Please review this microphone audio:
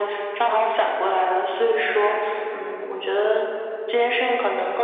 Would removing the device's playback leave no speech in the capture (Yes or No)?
Yes